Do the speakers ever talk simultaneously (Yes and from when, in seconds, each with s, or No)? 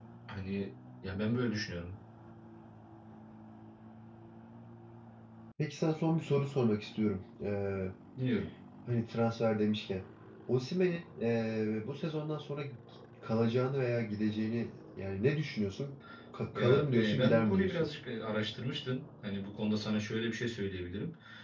Yes, from 16.5 s